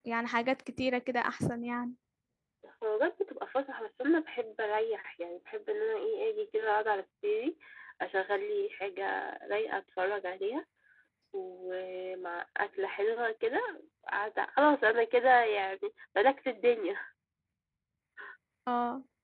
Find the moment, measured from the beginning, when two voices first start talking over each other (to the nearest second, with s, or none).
none